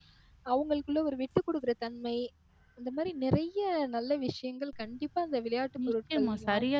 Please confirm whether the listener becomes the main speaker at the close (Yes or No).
Yes